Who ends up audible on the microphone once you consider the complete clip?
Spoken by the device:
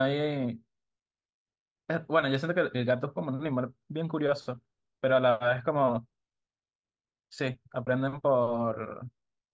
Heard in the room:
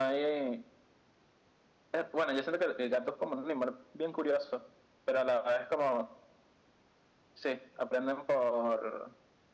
echo only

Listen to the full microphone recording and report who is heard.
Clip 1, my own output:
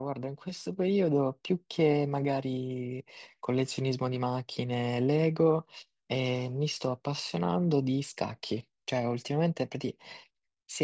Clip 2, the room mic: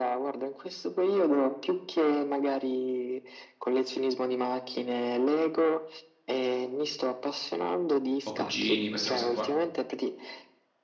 both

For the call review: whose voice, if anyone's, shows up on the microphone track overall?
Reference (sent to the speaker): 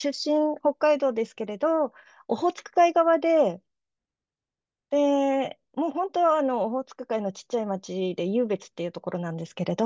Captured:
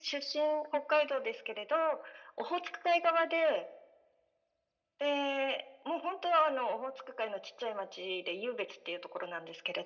echo only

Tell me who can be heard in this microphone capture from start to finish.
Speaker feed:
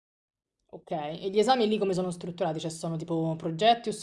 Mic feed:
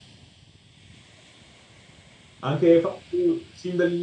user only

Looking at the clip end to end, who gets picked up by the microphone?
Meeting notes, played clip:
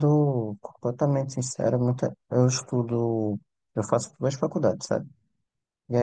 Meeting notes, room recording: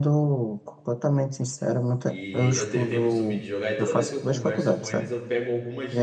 both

